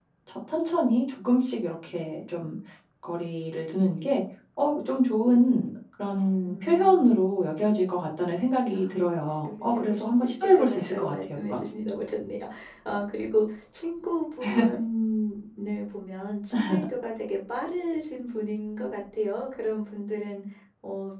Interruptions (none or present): present